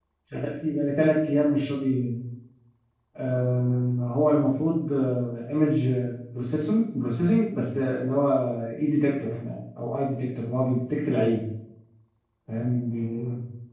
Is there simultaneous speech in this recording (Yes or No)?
No